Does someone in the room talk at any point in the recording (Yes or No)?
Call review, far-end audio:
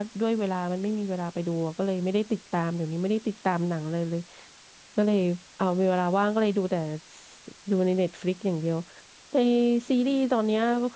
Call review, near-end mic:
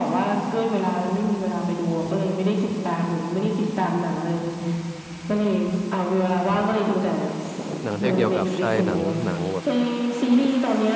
Yes